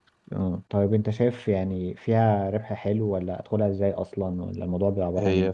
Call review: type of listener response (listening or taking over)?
taking over